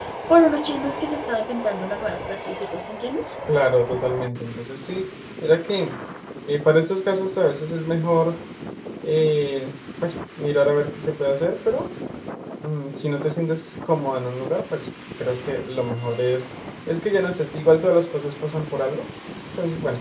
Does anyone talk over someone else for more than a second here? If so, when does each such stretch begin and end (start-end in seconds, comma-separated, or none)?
none